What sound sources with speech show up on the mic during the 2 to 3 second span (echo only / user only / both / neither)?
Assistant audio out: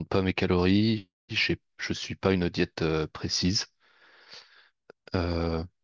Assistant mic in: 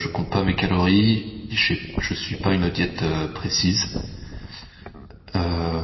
echo only